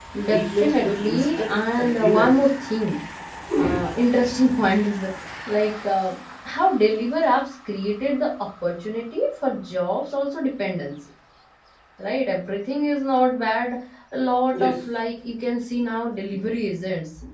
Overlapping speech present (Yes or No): Yes